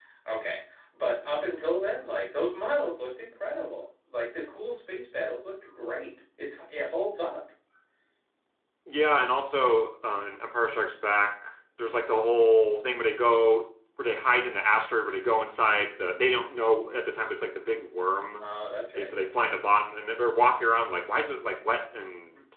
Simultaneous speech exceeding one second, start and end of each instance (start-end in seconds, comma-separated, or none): none